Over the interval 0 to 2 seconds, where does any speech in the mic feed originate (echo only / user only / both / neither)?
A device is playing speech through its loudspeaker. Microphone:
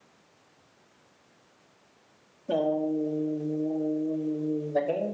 neither